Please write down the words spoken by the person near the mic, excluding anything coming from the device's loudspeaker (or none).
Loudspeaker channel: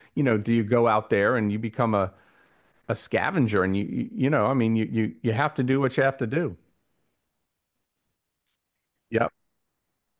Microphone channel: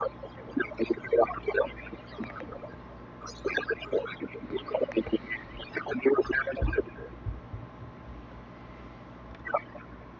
none